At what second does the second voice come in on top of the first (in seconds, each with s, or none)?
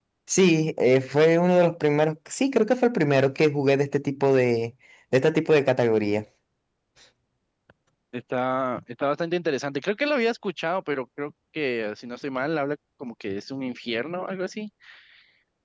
none